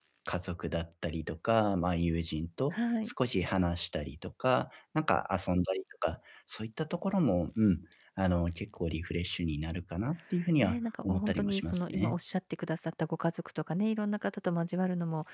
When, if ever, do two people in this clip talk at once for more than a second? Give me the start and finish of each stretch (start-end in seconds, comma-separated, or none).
10.6-12.2